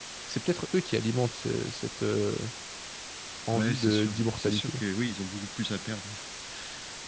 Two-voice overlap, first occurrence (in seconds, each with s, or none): 3.5 s